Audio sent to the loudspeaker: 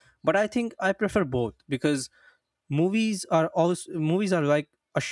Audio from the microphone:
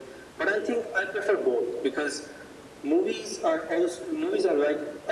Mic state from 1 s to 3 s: echo only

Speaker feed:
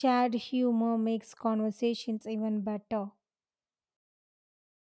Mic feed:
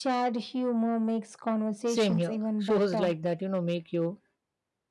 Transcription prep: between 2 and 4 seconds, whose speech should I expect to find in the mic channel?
both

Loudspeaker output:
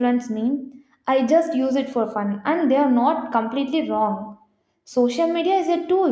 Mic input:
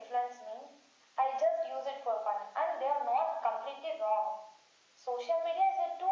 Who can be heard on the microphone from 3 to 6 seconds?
echo only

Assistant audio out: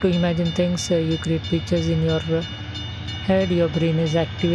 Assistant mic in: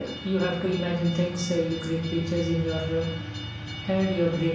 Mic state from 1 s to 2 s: echo only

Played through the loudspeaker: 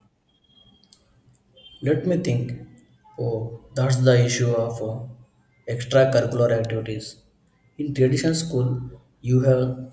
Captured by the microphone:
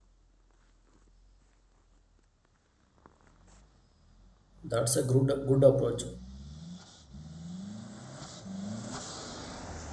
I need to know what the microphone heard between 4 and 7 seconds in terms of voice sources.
user only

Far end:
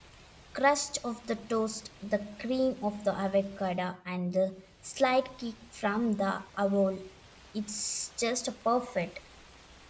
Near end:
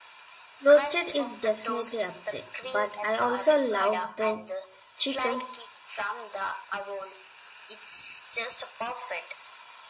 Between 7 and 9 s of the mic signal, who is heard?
echo only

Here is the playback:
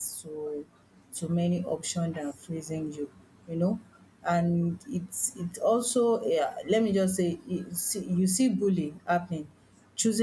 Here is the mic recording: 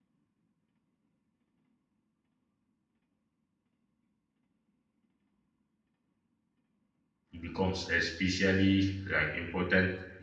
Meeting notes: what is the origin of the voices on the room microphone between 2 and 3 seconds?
neither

